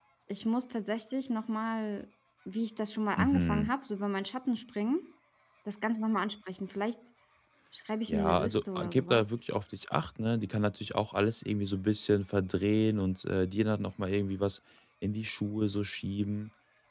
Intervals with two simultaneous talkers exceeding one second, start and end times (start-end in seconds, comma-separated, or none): 8.1-9.4